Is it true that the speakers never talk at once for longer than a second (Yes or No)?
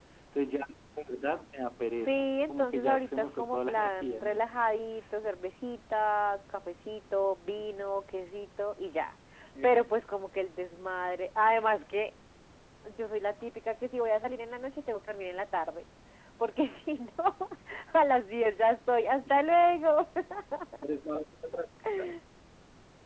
No